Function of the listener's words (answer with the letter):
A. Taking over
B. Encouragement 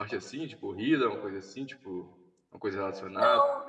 A